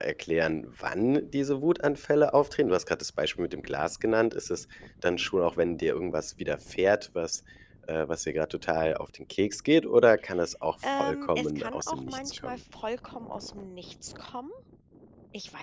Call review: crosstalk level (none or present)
present